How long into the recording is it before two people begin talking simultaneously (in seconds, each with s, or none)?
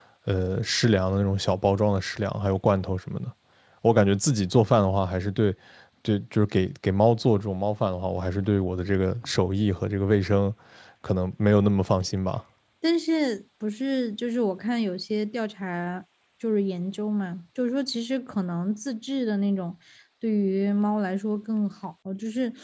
none